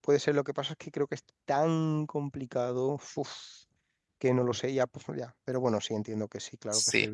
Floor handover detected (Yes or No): Yes